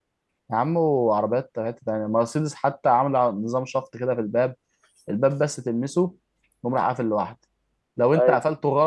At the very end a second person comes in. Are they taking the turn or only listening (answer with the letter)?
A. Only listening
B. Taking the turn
A